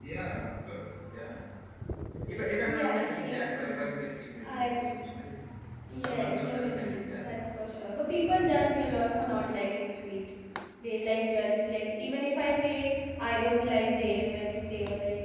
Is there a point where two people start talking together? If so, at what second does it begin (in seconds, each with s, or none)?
2.6 s